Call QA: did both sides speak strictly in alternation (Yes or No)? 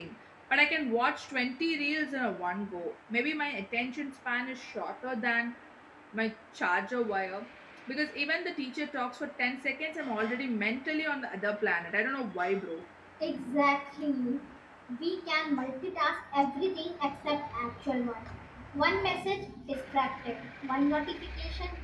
Yes